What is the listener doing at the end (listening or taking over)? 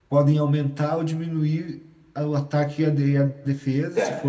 taking over